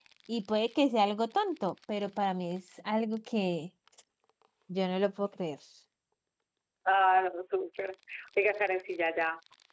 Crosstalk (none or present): none